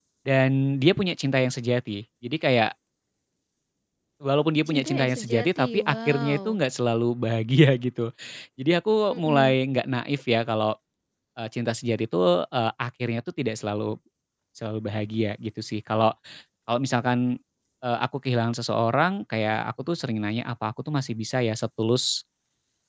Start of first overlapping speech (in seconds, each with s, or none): 4.7 s